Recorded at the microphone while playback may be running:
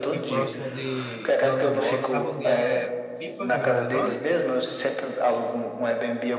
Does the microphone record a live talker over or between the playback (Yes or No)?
Yes